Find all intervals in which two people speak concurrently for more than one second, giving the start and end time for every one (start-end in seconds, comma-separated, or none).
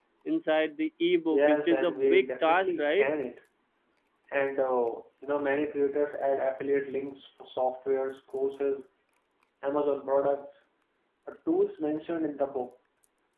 1.3-3.1